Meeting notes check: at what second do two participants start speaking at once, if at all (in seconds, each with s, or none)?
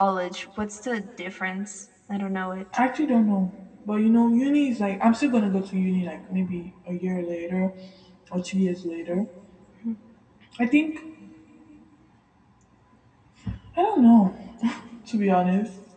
none